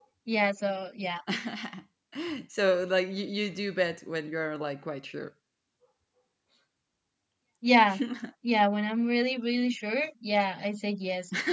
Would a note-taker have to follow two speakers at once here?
No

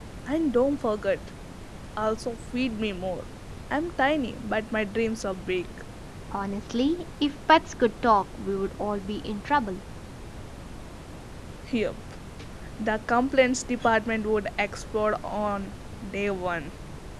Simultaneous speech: No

